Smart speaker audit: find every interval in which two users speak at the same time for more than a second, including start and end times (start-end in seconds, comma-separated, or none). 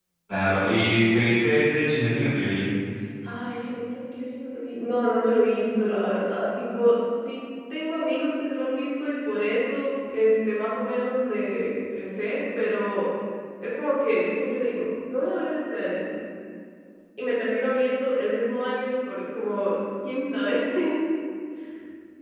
none